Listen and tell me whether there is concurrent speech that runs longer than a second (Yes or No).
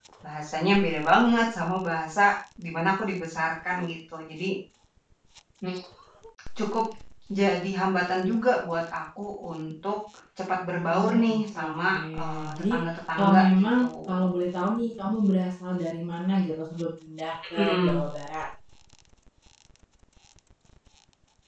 Yes